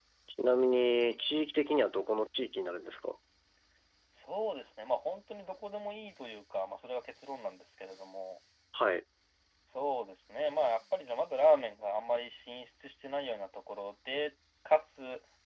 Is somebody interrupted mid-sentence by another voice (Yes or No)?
No